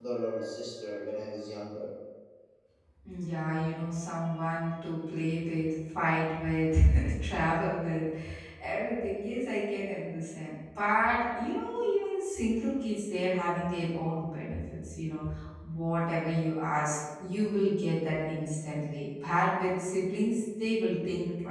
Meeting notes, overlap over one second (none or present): none